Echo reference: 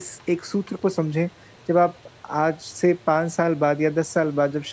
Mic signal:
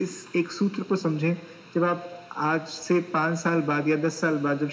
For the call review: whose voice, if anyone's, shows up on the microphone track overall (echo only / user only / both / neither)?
echo only